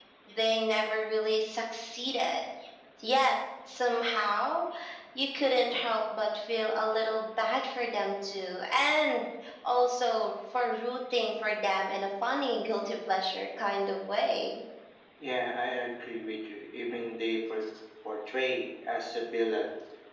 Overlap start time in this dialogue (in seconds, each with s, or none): none